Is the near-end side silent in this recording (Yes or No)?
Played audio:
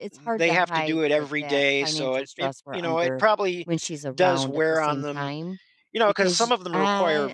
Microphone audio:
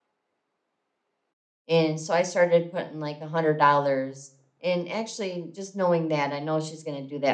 No